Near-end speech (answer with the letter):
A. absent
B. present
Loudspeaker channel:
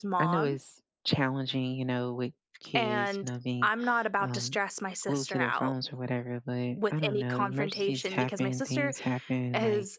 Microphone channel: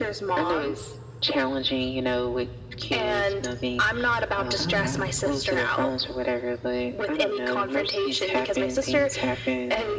B